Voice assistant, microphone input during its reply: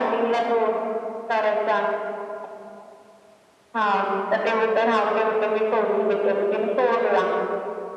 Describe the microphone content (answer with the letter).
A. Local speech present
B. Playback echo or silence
B